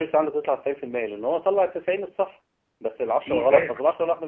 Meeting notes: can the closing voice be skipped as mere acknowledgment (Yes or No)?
Yes